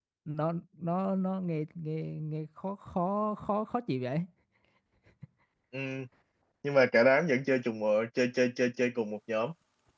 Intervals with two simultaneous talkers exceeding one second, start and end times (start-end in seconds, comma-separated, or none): none